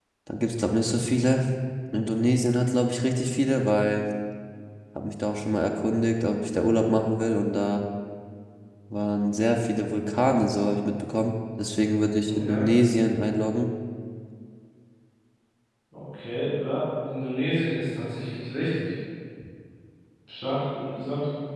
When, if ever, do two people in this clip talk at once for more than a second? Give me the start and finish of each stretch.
none

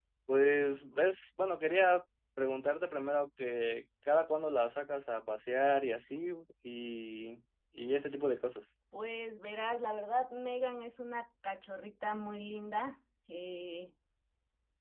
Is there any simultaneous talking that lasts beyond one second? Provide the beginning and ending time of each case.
none

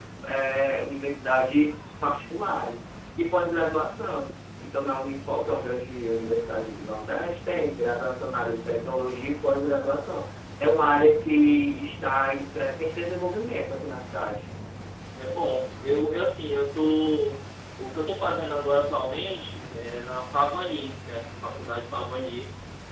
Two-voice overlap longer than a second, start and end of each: none

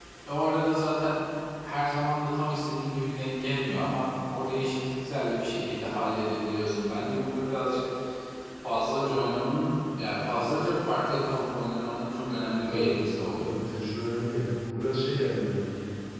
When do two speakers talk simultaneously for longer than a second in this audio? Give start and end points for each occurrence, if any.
none

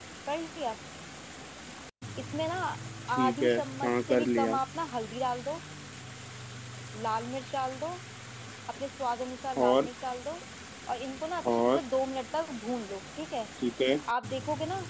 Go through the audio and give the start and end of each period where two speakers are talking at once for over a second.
3.2-4.6

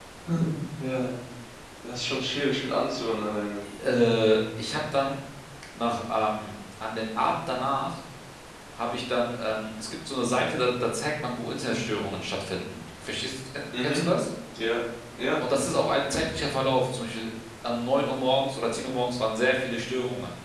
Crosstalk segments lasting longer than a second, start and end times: none

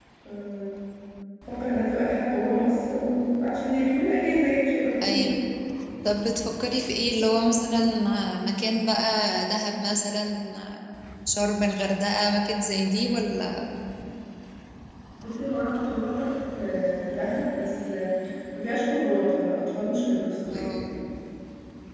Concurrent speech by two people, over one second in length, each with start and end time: none

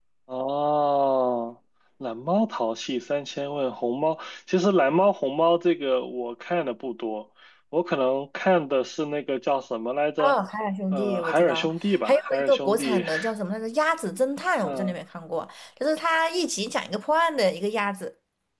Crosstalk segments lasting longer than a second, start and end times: 10.9-13.1

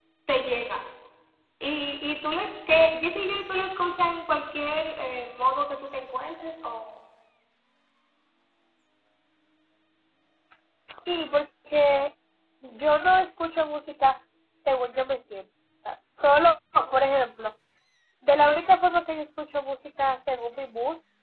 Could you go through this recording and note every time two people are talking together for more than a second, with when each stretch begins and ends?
none

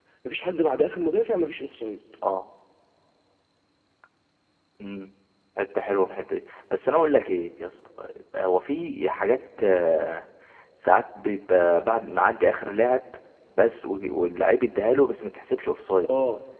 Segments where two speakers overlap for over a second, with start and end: none

